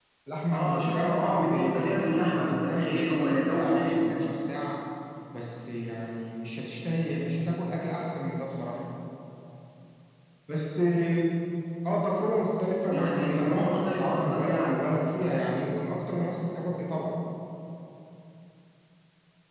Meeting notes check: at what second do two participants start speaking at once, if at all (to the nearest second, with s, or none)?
1 s